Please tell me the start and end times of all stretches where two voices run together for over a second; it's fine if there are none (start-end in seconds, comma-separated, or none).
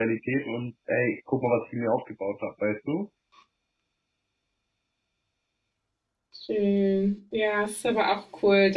none